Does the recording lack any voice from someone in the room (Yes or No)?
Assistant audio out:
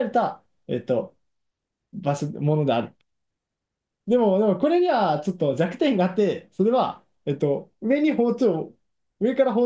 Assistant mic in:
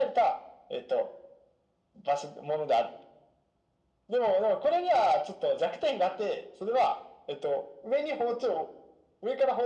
Yes